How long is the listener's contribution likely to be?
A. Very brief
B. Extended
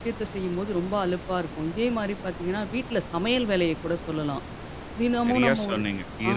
B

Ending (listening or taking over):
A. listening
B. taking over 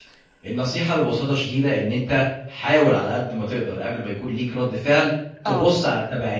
A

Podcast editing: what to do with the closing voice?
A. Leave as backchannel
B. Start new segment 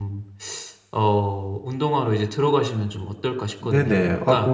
B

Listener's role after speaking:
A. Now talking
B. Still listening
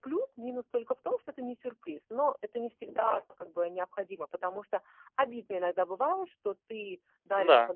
B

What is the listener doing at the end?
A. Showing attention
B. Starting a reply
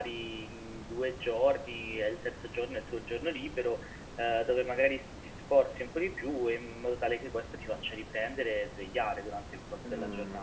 B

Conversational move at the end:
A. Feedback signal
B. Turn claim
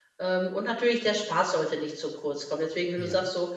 A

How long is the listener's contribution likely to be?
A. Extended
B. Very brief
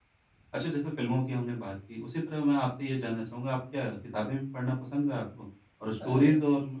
B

